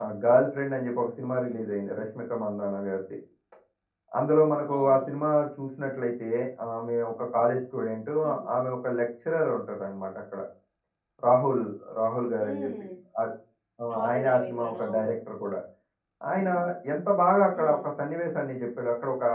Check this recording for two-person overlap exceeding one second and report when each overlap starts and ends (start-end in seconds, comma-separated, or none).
13.9-15.1